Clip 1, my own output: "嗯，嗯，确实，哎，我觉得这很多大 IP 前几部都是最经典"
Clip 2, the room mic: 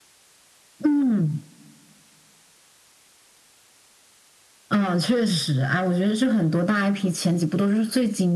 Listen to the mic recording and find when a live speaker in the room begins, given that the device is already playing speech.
none

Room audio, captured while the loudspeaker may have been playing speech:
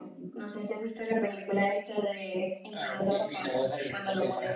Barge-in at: none

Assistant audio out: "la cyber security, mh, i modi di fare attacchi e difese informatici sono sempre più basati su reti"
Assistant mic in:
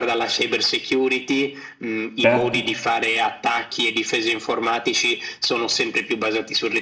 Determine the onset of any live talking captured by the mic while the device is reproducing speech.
2 s

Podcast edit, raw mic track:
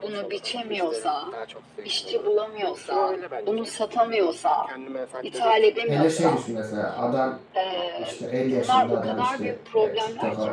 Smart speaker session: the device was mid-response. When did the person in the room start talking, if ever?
6 s

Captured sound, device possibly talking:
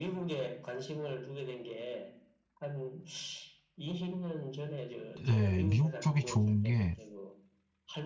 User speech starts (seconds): 5 s

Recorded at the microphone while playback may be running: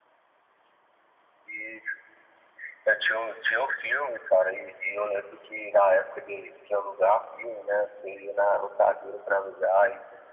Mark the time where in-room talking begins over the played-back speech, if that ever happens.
none

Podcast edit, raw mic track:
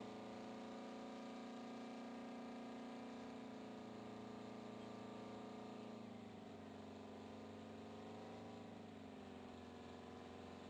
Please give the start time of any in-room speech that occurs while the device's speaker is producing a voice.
none

